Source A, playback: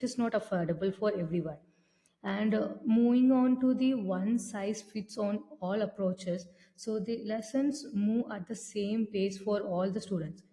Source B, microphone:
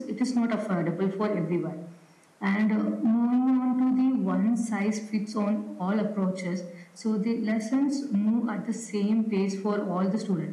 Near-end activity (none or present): none